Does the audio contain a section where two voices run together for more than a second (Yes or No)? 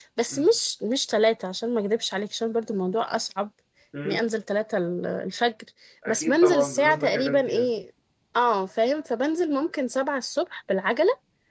Yes